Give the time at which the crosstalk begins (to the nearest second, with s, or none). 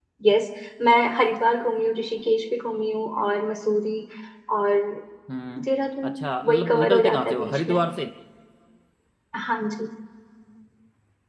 6 s